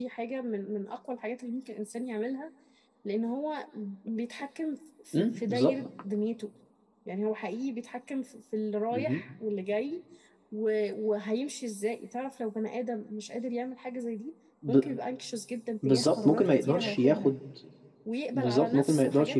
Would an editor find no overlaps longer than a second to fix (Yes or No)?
No